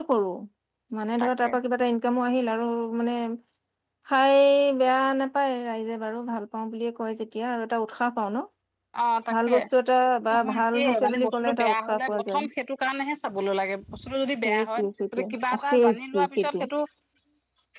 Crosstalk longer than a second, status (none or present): present